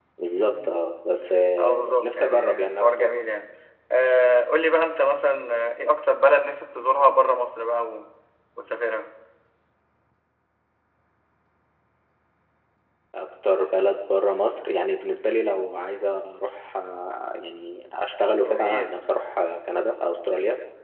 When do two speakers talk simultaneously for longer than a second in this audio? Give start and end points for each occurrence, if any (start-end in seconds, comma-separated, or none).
1.6-3.2